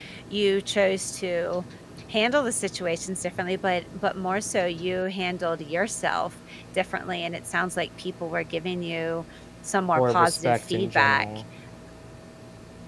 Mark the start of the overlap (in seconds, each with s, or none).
9.9 s